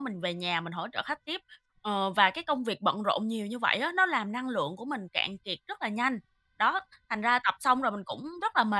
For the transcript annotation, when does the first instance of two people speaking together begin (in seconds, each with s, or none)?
none